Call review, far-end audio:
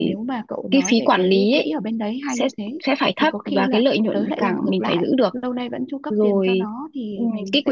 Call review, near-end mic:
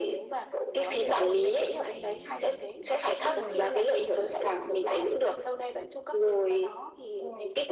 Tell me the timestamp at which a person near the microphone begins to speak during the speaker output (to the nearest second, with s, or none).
1 s